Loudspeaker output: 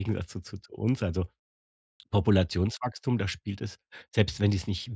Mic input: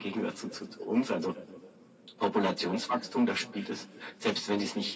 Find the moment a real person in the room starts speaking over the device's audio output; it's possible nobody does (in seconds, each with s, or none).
none